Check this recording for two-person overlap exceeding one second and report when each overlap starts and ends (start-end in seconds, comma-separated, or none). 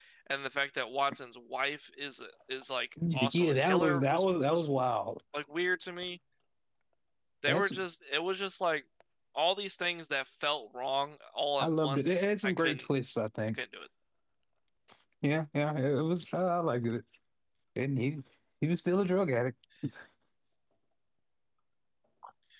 3.1-4.6, 11.6-12.9